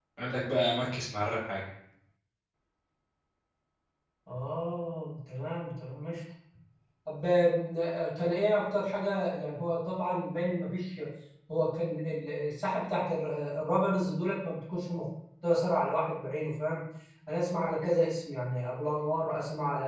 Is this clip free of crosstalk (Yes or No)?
Yes